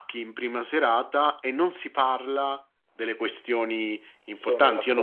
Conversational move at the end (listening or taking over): listening